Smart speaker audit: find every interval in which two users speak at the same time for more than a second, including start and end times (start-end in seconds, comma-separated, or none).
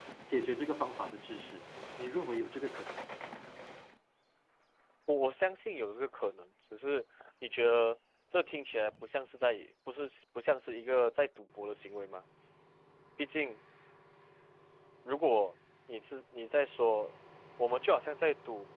none